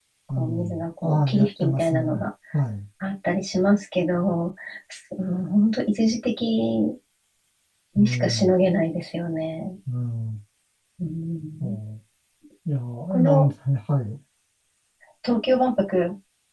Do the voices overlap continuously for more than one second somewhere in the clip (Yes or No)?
Yes